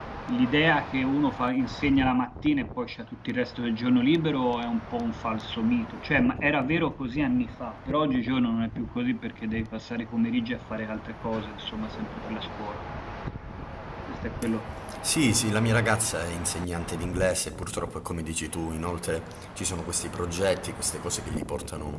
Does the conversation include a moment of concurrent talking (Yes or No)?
No